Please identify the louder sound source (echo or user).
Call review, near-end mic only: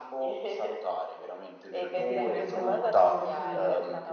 echo